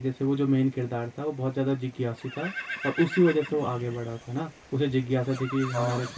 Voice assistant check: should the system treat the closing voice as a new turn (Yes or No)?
No